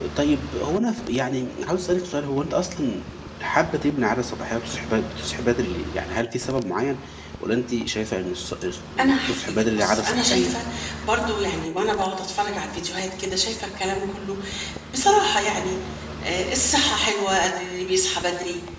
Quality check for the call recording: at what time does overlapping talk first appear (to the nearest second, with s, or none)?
9 s